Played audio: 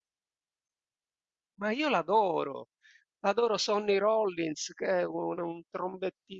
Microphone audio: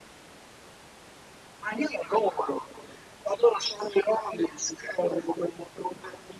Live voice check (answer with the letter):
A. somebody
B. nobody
B